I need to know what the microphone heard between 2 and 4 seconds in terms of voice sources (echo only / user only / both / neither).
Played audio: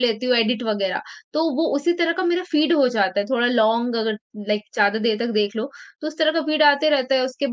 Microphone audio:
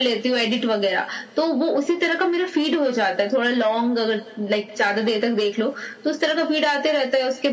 echo only